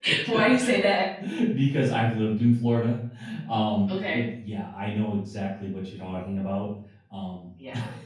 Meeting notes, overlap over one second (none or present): none